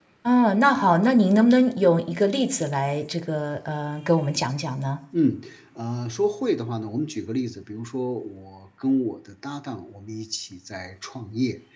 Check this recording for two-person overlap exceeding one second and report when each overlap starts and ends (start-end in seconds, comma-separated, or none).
none